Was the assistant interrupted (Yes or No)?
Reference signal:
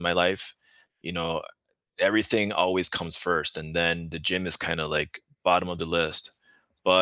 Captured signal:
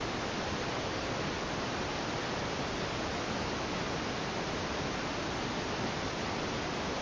No